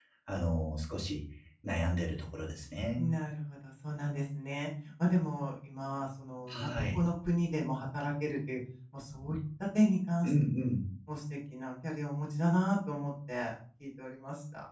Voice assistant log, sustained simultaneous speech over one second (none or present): none